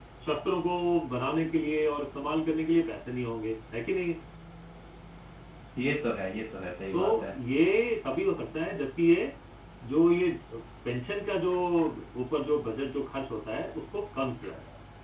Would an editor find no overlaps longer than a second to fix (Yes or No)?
Yes